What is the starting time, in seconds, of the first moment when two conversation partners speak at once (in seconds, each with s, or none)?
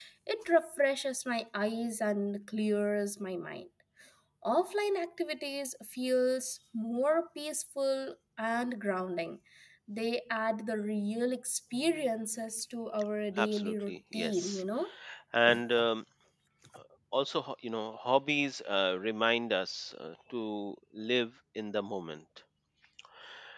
13.4 s